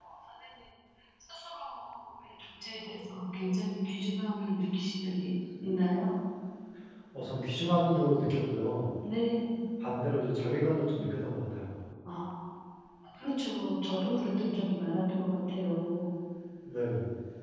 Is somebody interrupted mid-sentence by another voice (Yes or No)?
No